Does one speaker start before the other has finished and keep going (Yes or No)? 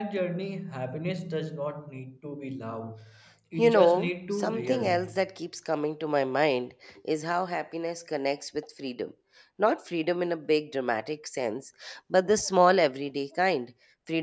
Yes